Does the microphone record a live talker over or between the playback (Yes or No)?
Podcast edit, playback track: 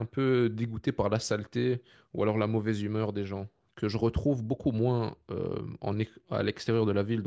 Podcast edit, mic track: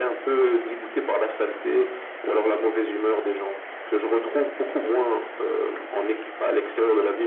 No